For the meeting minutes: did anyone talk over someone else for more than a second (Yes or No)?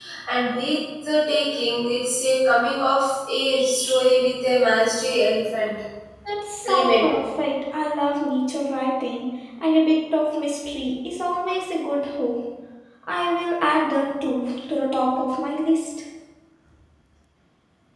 No